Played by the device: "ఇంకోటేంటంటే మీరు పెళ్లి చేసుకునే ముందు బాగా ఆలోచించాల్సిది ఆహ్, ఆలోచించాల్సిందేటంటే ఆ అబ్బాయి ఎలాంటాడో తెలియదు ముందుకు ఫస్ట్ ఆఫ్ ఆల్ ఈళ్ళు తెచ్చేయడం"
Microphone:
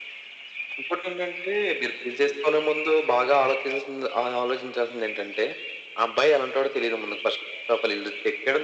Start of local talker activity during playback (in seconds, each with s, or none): none